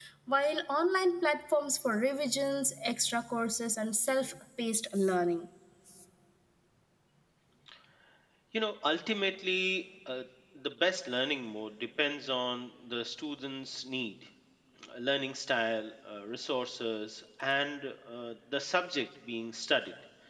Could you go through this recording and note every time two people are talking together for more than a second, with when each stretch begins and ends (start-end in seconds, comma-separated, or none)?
none